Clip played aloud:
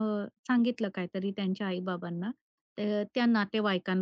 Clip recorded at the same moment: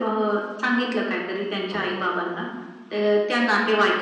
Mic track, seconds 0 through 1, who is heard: echo only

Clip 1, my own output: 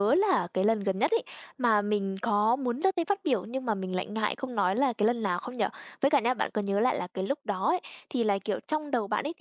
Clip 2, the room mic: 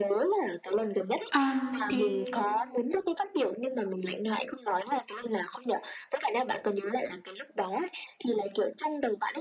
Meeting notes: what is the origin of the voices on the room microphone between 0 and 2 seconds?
both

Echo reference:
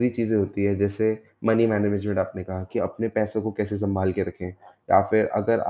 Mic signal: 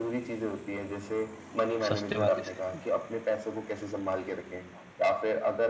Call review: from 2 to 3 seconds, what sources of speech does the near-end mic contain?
both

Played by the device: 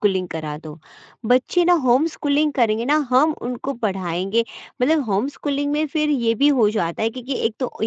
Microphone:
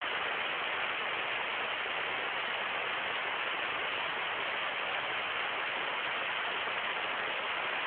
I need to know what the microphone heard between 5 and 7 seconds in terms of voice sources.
neither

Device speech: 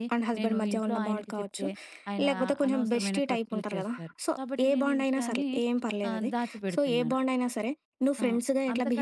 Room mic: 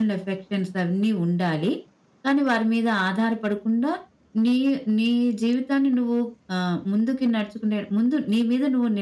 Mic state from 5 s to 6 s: user only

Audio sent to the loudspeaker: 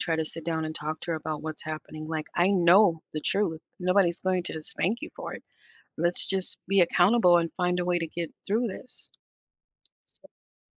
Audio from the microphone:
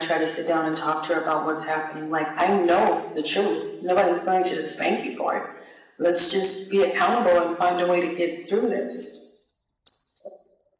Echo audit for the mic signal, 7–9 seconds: echo only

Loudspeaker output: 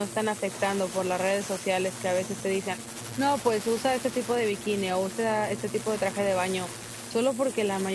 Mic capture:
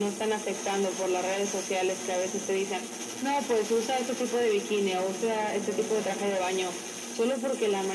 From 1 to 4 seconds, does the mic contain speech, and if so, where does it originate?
echo only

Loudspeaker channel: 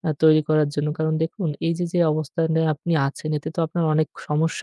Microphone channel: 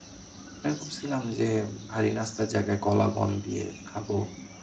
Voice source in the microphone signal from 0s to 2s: user only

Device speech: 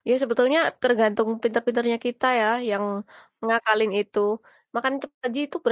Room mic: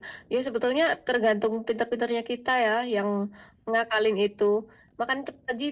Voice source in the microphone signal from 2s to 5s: echo only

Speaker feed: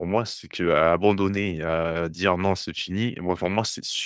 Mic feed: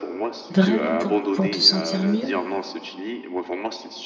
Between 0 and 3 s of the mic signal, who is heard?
both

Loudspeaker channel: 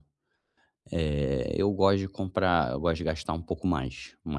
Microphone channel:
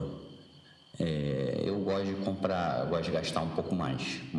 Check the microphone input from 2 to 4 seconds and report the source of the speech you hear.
echo only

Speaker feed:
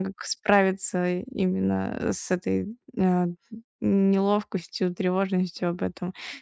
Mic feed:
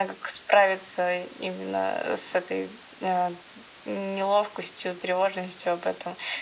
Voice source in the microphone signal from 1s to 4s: echo only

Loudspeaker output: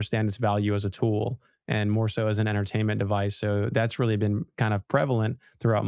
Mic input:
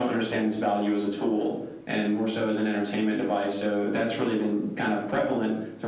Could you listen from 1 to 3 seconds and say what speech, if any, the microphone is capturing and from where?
echo only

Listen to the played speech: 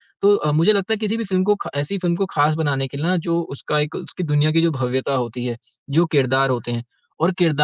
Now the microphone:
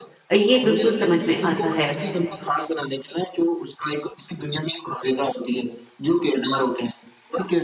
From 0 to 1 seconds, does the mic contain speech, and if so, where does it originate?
both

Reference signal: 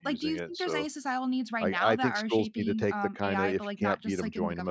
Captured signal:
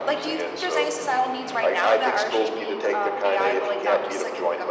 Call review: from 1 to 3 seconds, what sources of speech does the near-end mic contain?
echo only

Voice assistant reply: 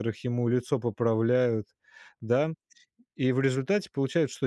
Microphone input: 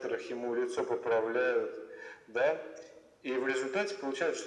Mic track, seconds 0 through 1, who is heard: echo only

